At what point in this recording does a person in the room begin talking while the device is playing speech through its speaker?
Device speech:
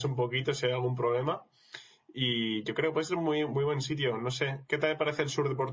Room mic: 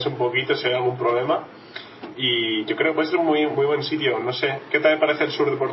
none

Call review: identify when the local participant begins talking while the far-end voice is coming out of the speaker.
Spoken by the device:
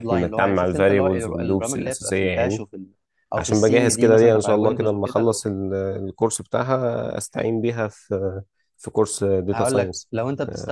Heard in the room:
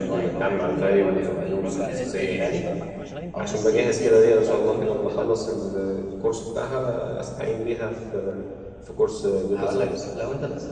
2 s

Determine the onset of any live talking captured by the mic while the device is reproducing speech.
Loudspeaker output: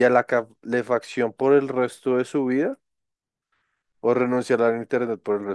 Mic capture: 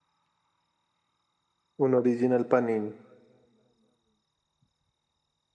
2 s

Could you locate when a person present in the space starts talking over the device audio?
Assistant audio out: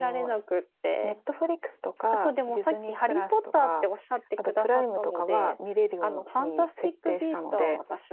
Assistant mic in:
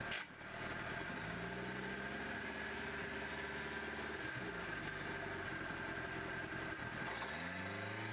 none

